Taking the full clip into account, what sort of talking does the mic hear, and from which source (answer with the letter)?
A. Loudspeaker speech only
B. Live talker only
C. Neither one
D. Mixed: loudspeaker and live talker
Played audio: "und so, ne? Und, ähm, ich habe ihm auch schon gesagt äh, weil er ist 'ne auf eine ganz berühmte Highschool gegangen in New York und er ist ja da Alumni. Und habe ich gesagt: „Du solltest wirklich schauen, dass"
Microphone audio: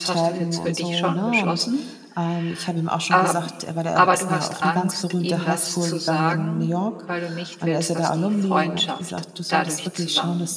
D